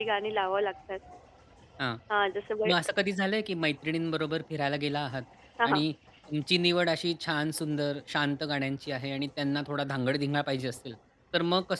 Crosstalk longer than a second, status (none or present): none